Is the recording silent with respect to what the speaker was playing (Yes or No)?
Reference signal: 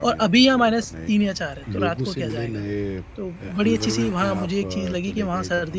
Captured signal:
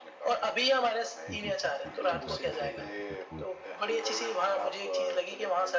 No